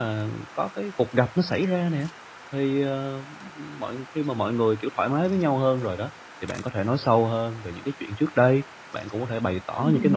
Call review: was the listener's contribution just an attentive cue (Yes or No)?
Yes